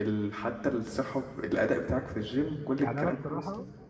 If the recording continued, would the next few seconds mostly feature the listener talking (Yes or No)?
Yes